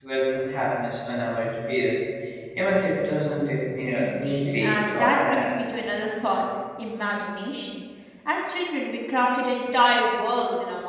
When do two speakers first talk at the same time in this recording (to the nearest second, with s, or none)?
4 s